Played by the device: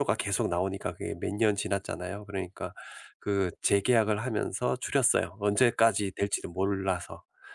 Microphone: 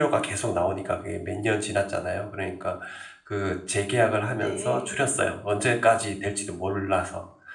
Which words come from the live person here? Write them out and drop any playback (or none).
네.